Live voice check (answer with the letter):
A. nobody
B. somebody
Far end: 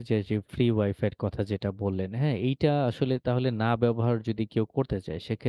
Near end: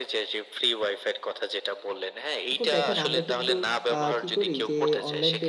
B